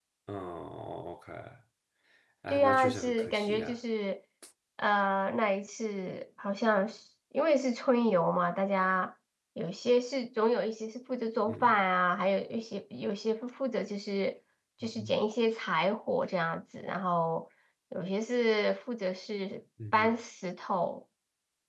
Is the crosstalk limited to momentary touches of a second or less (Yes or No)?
No